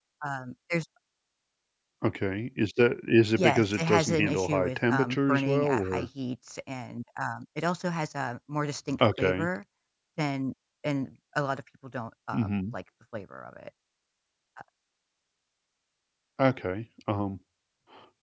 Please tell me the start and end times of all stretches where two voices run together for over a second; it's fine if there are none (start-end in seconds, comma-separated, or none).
3.4-6.1